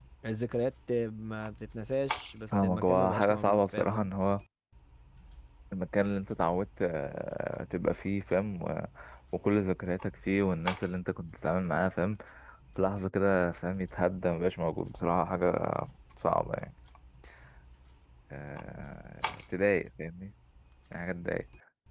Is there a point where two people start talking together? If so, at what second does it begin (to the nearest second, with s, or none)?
3 s